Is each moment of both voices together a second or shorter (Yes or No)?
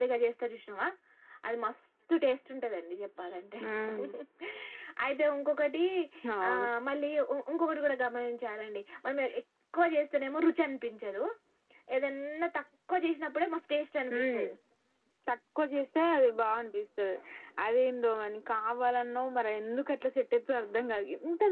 Yes